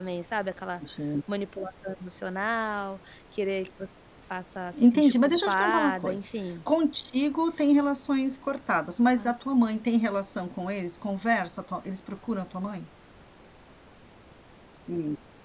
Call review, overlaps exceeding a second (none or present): present